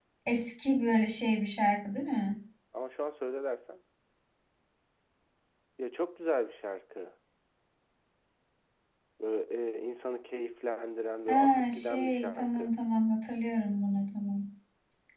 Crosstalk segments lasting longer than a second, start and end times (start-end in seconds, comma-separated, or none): 11.3-12.7